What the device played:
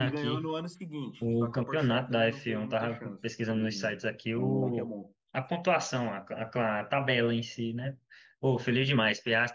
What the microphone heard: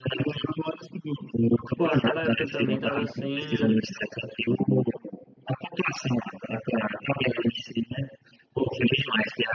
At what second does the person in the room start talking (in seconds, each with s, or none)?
1.7 s